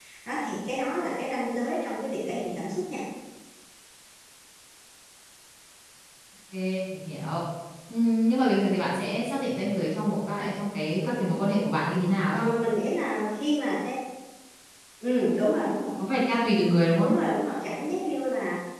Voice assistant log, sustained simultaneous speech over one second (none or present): none